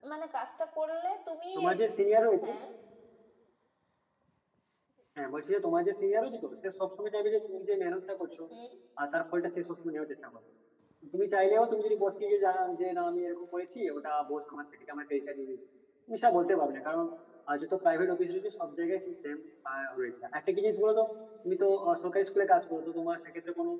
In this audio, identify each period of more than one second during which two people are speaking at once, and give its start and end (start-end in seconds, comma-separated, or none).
none